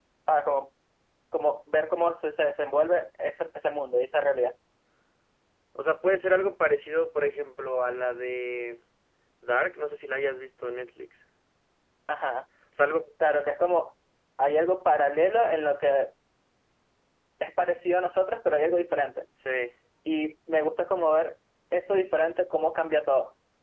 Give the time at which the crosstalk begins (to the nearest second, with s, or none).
none